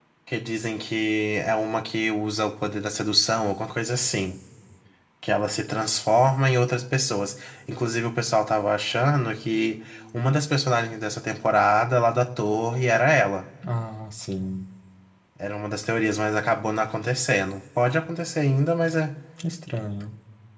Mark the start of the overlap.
none

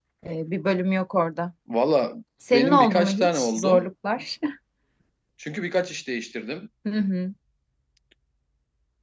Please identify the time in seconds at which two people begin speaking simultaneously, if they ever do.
2.5 s

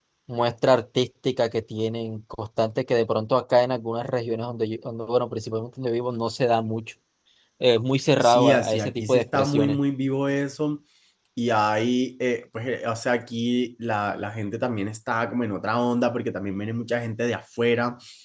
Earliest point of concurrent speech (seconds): 8.2 s

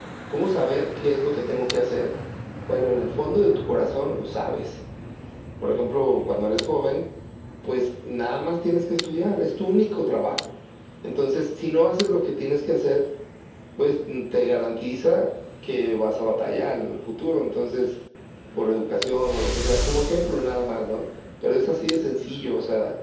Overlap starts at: none

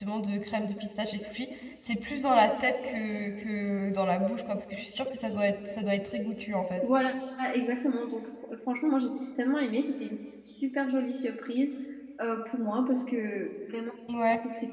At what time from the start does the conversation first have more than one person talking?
none

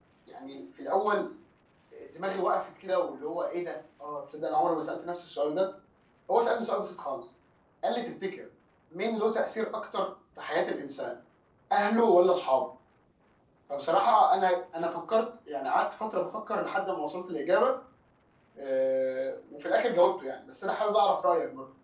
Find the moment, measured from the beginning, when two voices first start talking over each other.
none

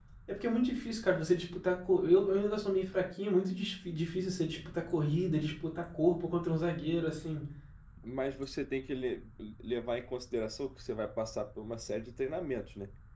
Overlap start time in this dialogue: none

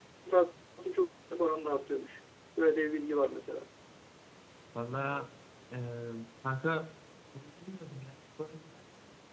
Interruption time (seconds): none

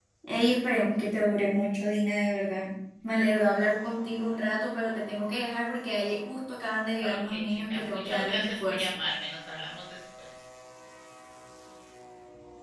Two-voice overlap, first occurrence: 7.0 s

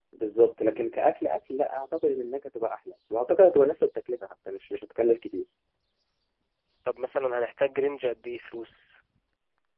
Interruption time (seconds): none

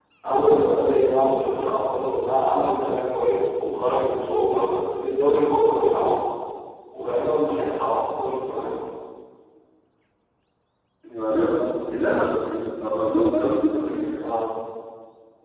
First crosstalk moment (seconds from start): none

